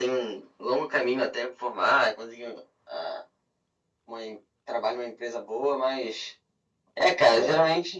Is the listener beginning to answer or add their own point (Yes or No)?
No